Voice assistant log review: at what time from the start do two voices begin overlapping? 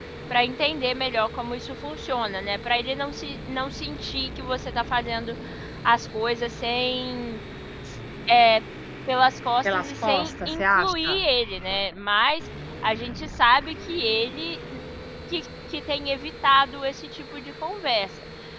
9.7 s

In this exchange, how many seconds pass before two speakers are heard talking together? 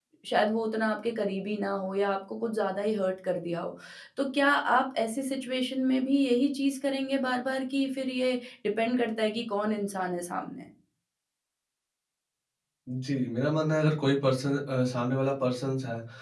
none

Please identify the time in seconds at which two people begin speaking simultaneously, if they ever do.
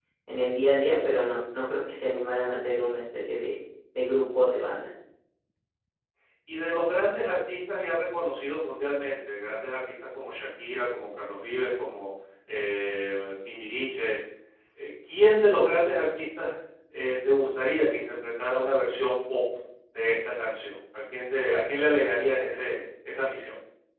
none

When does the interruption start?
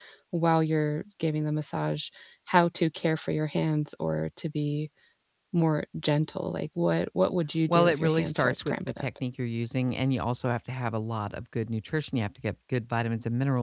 7.7 s

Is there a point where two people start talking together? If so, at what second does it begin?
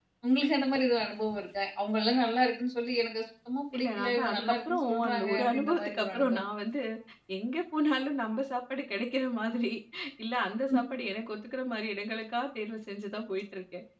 3.7 s

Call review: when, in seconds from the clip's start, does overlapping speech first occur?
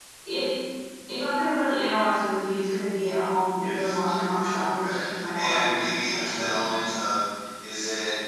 3.6 s

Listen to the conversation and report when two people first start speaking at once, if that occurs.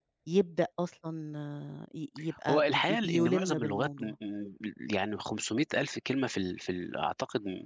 2.5 s

